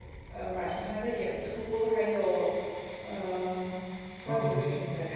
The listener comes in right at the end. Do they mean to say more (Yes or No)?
No